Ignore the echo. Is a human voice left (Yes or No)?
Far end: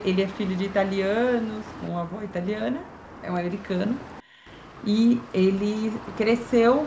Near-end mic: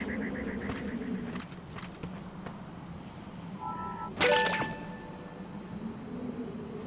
No